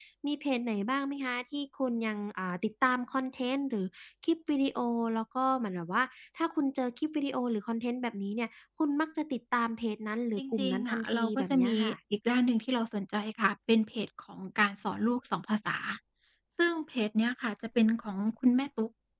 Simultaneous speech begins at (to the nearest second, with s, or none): 10 s